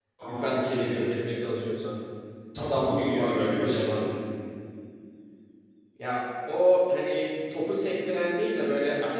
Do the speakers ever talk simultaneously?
Yes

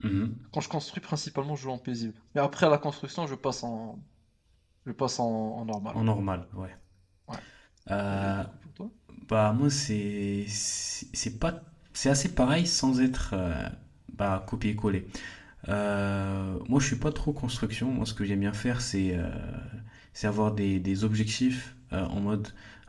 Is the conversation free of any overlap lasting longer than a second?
Yes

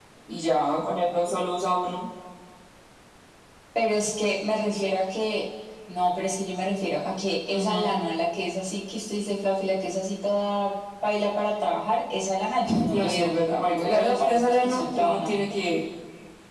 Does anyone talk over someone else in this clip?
Yes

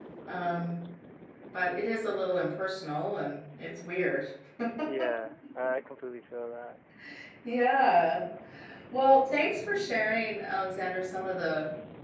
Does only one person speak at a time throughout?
Yes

